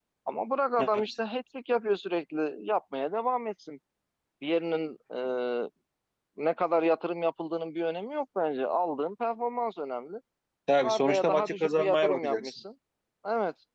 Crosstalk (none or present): present